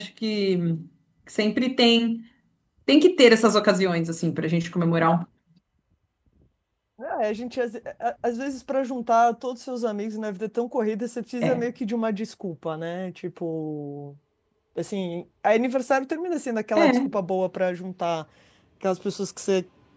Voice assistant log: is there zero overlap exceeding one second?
Yes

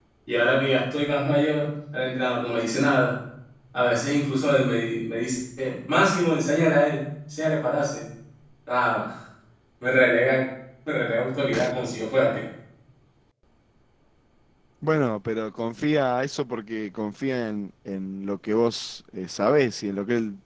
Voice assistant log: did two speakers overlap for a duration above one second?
No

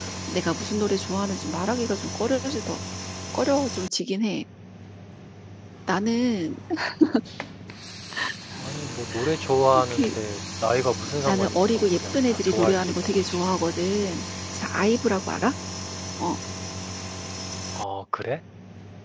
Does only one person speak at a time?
No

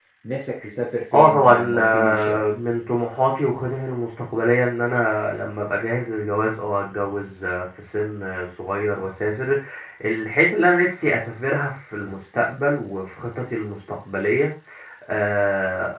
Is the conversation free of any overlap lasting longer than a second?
No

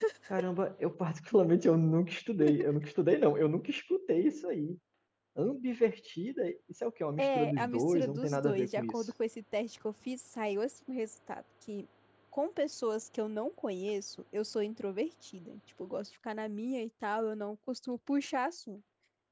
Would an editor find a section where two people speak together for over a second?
Yes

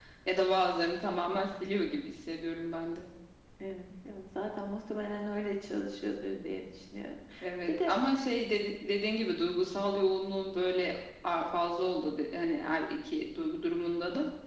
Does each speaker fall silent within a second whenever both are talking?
Yes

